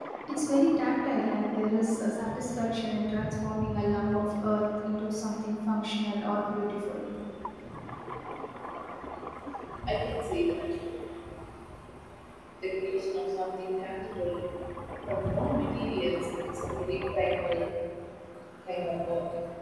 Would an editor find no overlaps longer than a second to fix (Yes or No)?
Yes